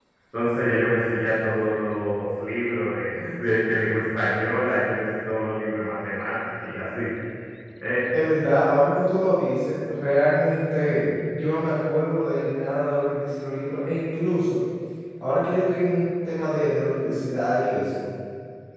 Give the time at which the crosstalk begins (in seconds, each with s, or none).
none